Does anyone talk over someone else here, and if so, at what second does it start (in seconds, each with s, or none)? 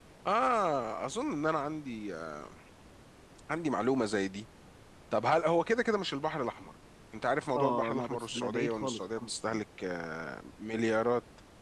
7.6 s